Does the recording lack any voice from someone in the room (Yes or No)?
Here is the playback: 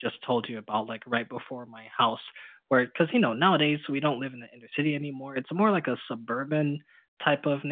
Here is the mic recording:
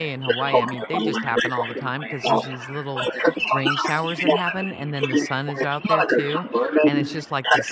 No